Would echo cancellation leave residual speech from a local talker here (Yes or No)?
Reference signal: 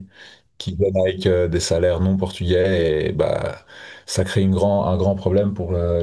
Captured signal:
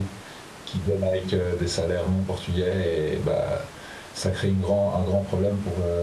No